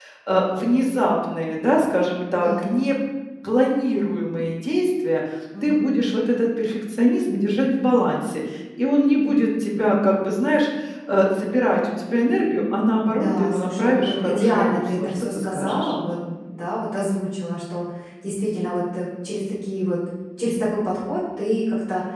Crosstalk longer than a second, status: present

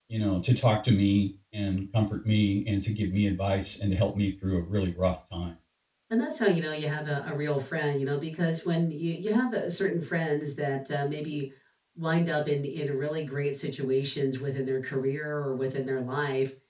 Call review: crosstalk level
none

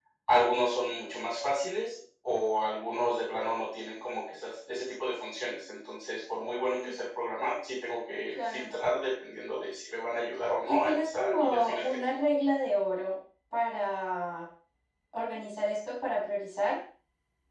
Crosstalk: present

